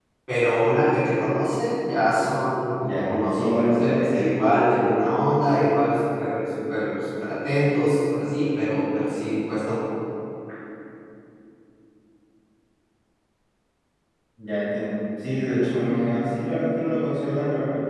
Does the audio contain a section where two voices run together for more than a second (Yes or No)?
Yes